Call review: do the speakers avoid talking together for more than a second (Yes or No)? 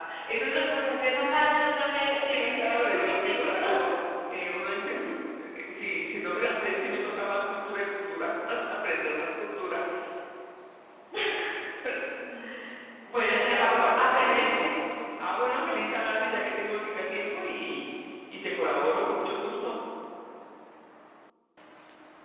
No